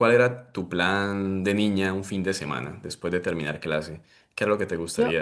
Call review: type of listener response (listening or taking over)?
taking over